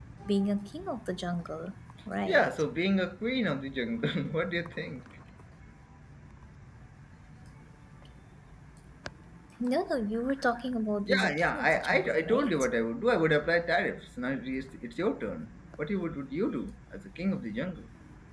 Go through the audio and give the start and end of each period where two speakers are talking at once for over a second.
11.0-12.5

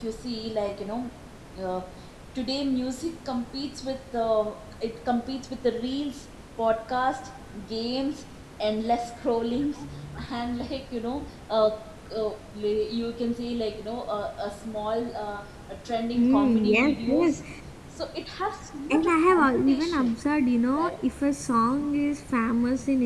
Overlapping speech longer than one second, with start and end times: 16.1-17.4, 18.9-20.2

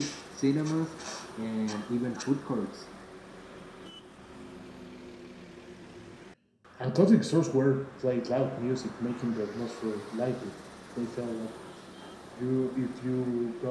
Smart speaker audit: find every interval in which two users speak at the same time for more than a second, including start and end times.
none

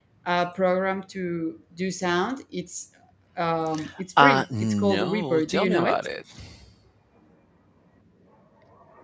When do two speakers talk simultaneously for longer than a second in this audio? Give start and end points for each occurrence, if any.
4.2-6.0

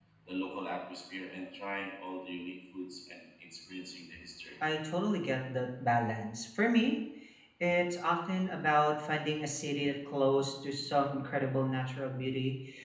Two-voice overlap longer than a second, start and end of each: none

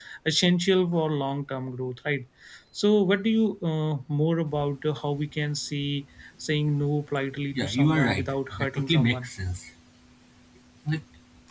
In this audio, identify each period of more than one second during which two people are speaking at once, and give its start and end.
7.5-9.3

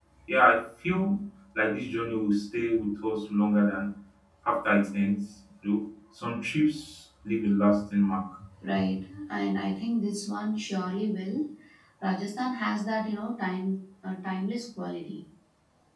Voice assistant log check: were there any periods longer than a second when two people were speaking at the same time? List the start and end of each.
none

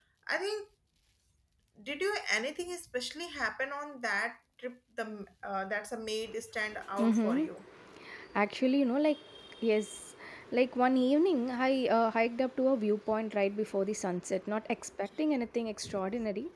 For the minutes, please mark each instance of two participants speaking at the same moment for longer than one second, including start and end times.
none

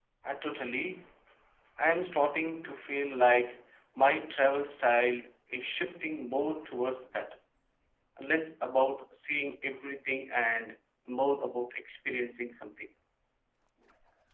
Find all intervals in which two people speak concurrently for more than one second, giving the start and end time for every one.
none

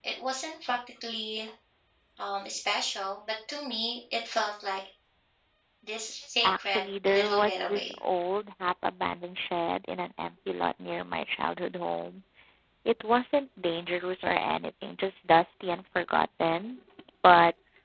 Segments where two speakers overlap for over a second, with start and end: 6.4-7.9

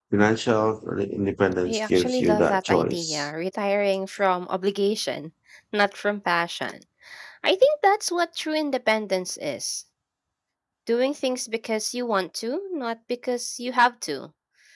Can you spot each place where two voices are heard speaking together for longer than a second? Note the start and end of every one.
1.6-3.3

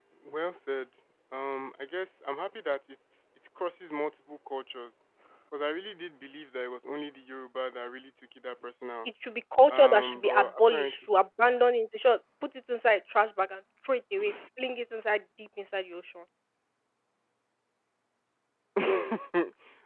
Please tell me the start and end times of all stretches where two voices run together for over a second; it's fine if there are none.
9.7-11.0

